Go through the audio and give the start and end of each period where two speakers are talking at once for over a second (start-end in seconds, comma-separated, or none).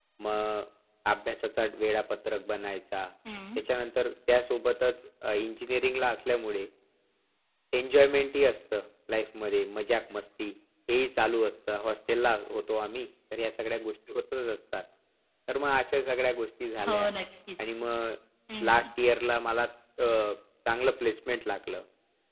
none